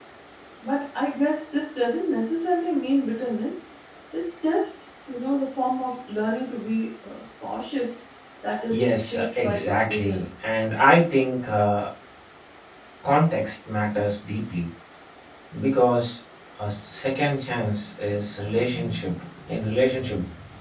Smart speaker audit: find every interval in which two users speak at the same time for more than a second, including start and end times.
8.7-10.4

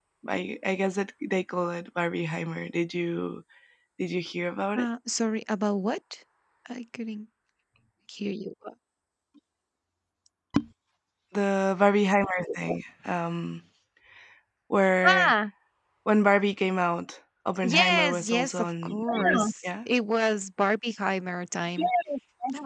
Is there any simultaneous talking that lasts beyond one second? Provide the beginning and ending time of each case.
17.6-19.7

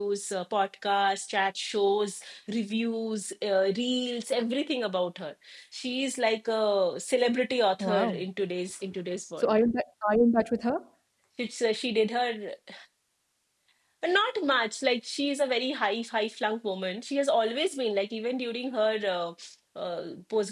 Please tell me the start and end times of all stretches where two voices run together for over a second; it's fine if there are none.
none

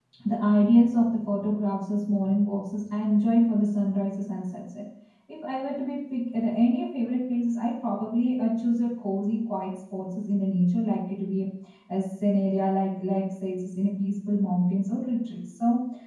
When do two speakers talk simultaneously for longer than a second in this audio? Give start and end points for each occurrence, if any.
none

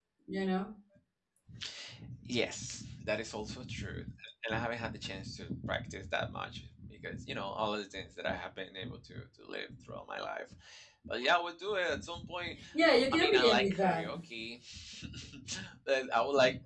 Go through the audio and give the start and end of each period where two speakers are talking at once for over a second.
12.7-14.1

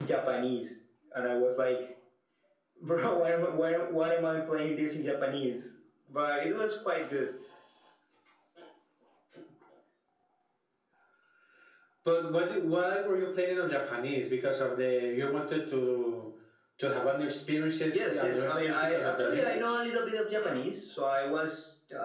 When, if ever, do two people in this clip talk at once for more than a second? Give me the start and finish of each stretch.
17.9-19.8

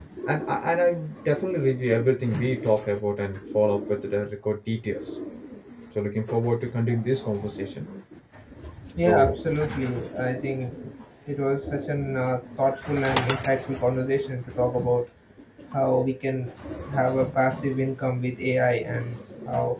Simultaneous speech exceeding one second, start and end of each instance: none

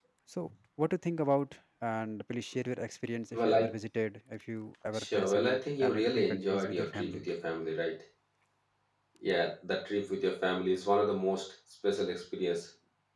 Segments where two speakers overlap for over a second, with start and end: 4.9-7.2

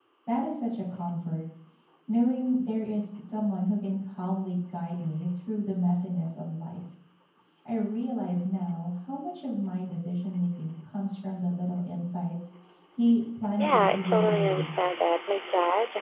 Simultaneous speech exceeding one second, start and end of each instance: 13.6-14.8

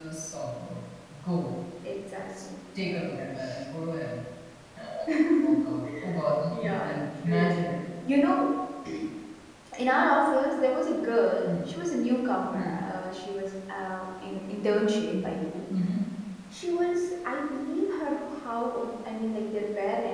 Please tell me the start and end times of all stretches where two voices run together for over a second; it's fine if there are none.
6.5-7.7

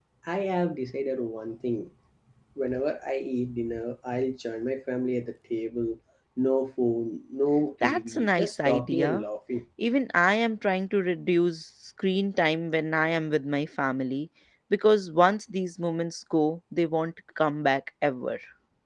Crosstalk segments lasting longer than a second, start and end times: 7.8-9.2

